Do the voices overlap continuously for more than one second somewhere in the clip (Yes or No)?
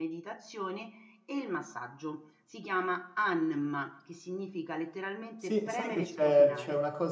Yes